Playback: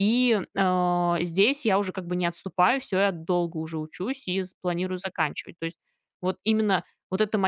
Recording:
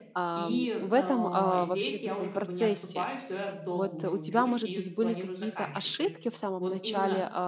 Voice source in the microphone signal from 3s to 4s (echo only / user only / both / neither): both